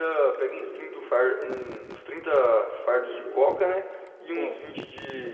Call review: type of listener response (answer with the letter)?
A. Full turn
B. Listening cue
B